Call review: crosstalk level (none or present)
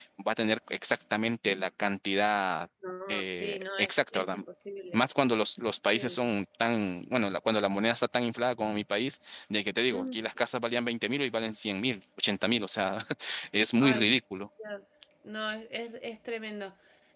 present